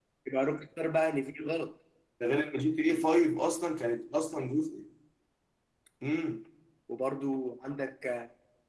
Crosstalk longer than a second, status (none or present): none